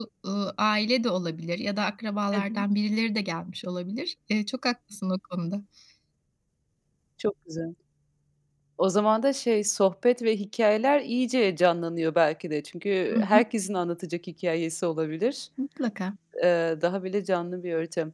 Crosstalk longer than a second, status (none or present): none